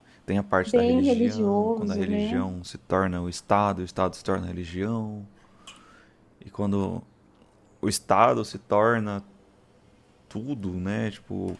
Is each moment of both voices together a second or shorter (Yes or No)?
No